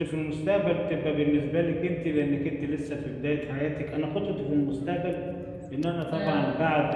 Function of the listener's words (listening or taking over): listening